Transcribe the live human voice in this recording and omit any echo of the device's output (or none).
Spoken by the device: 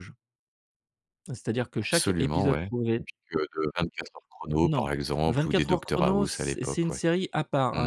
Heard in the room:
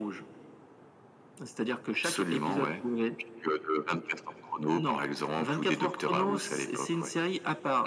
none